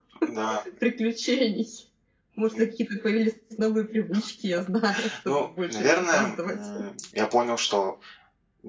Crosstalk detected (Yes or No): Yes